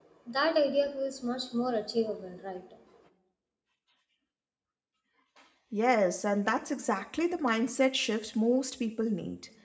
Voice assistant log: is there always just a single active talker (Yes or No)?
Yes